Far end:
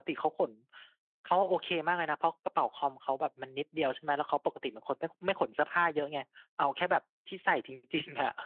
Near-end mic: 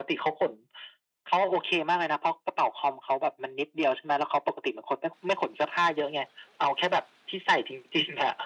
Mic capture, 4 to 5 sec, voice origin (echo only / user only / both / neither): echo only